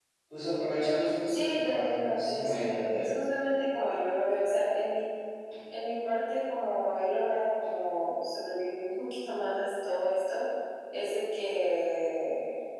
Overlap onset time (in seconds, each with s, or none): 1.3 s